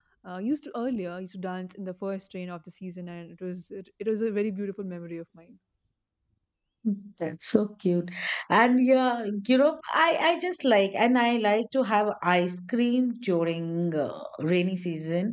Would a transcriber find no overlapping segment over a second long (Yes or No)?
Yes